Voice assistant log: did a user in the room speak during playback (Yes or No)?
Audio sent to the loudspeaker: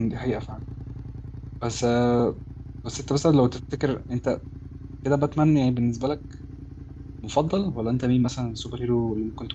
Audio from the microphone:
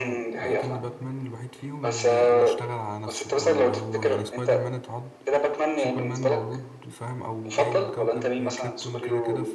Yes